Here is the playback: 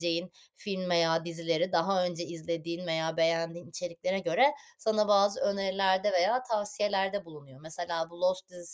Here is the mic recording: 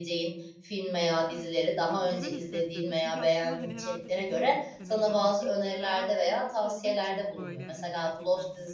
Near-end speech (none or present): present